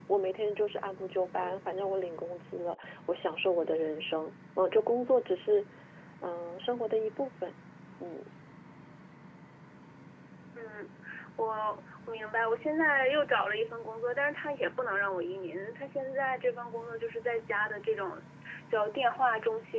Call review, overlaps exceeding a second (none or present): none